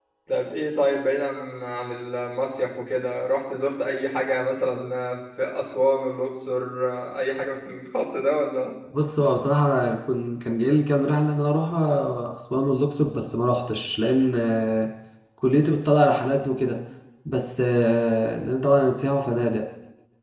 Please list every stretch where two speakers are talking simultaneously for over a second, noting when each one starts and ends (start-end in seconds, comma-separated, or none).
none